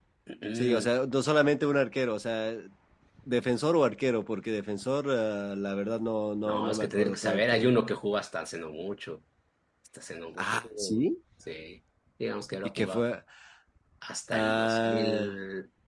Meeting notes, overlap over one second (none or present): present